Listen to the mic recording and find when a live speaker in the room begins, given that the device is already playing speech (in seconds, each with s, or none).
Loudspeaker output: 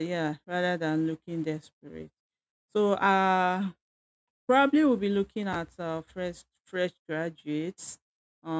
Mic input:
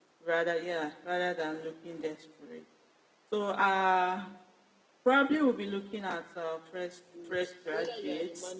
7.1 s